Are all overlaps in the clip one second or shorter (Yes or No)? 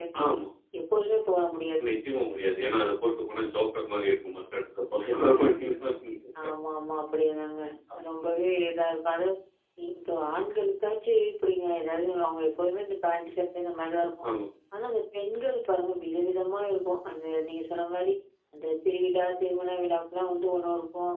Yes